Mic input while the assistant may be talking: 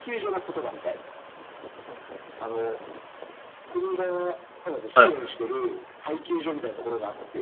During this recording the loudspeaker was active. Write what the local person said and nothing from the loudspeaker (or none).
い、